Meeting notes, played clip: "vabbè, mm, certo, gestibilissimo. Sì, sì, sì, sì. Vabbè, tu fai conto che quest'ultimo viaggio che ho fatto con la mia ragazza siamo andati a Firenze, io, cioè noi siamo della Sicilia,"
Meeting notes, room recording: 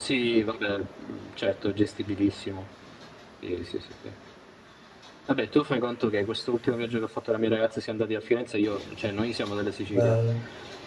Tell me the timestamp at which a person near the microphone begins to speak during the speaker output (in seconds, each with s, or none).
9.9 s